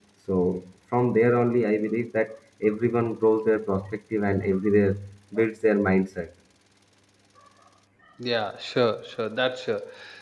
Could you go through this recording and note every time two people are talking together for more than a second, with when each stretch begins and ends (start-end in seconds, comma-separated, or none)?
none